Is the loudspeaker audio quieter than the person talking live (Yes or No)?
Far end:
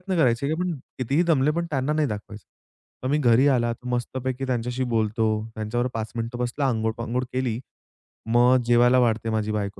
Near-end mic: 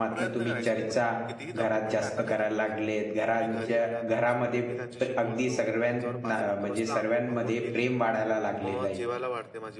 Yes